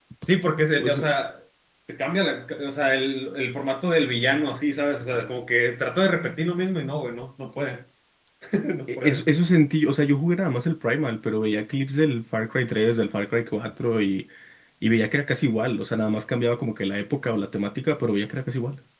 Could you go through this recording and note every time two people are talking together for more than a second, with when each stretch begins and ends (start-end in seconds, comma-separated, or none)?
none